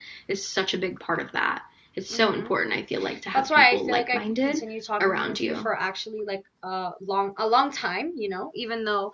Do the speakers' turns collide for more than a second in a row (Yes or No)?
Yes